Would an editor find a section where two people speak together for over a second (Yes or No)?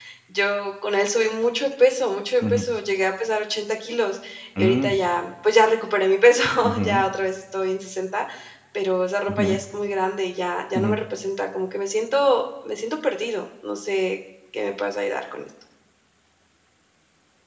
No